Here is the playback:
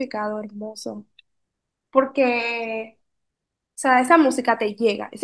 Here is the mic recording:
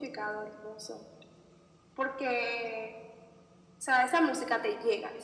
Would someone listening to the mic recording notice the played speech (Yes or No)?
Yes